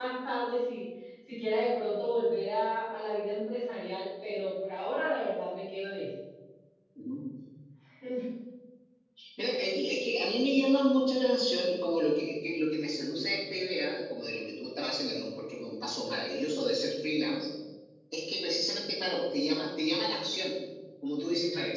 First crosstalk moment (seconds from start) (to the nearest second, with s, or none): none